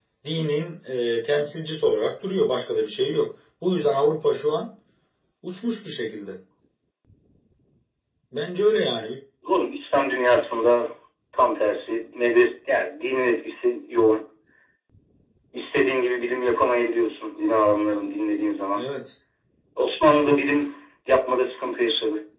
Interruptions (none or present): none